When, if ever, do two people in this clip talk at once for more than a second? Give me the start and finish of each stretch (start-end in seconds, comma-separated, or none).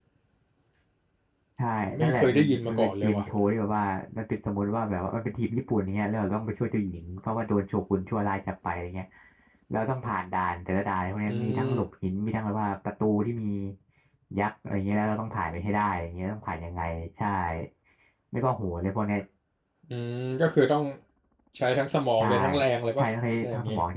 2.0-3.2